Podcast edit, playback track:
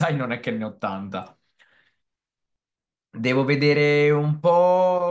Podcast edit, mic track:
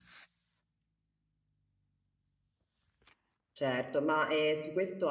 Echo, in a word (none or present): none